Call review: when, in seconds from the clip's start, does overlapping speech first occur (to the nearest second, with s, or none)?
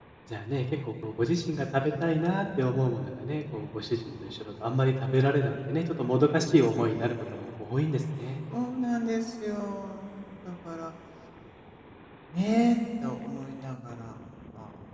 none